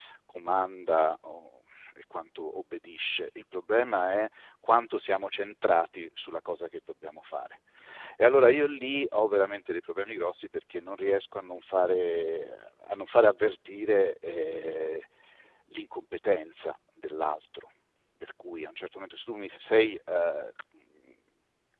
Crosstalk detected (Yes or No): No